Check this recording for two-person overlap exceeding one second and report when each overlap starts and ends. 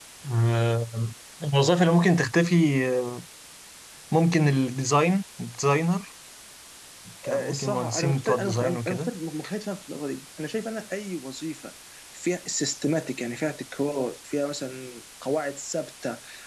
7.3-9.1

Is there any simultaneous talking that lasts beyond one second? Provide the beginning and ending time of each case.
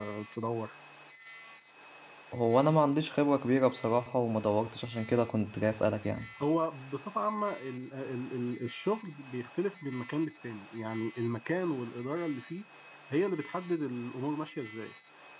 none

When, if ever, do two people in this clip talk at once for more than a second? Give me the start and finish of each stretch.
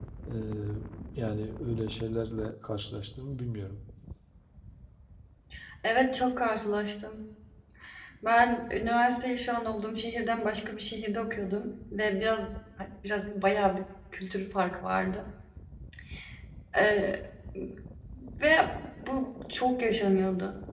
none

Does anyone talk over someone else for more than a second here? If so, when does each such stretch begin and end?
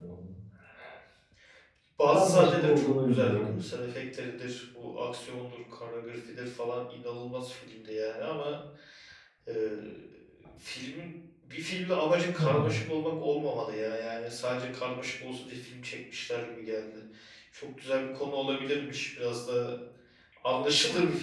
2.1-3.5

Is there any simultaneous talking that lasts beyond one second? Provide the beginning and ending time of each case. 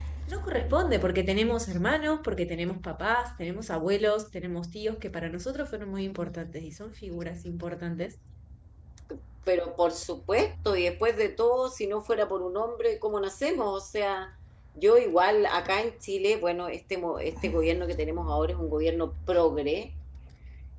none

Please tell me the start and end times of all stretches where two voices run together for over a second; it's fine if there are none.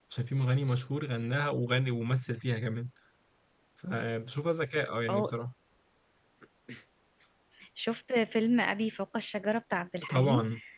none

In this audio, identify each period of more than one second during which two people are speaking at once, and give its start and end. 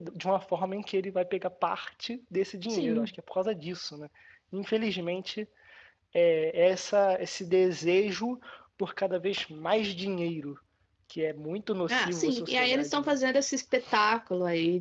11.9-13.1

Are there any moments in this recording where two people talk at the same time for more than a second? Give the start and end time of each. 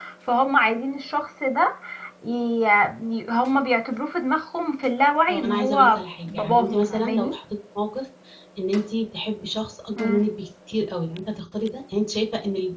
5.3-7.3

